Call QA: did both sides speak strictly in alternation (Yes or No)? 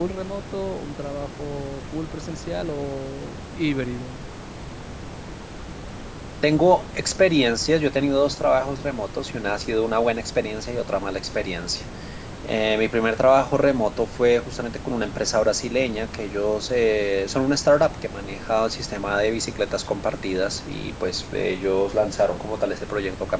Yes